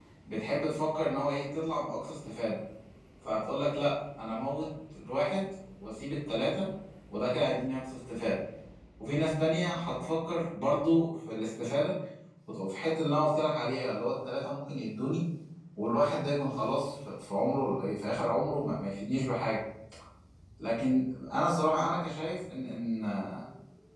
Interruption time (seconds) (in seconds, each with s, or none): none